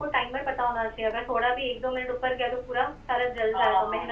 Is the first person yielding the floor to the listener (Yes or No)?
Yes